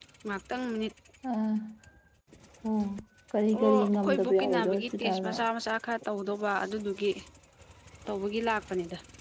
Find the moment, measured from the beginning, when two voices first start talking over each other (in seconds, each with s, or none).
3.5 s